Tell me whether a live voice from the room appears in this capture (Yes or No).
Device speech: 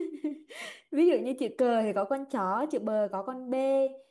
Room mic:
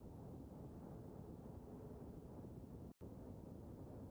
No